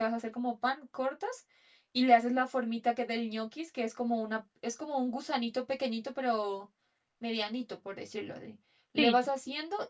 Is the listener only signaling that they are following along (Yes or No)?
Yes